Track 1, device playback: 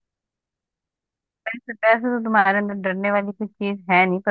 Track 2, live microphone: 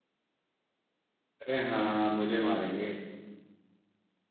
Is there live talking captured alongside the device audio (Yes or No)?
Yes